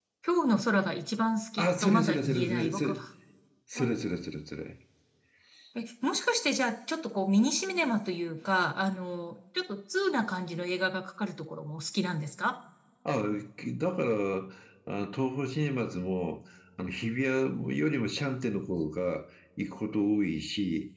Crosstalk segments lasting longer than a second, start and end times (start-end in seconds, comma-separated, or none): 1.6-2.9